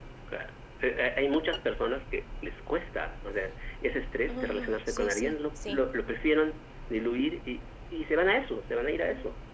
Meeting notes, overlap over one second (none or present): present